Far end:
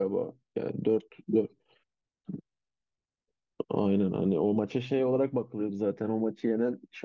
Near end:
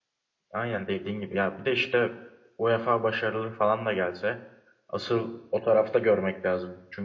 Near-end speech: present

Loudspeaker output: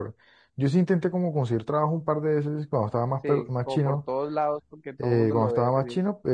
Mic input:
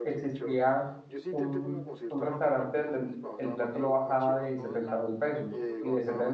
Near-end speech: present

